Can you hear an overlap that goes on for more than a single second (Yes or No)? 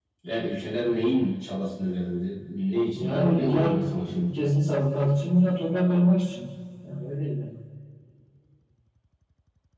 Yes